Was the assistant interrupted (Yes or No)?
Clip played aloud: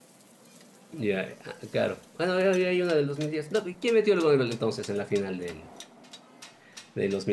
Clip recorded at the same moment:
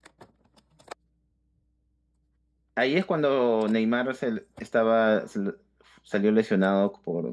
Yes